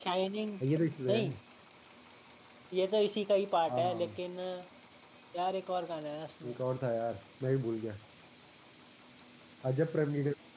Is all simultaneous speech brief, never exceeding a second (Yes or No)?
Yes